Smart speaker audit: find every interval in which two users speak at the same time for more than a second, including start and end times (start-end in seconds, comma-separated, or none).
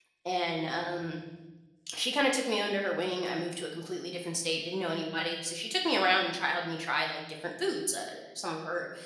none